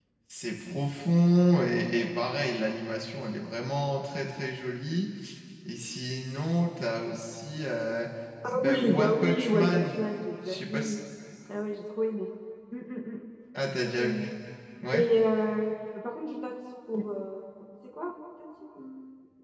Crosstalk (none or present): present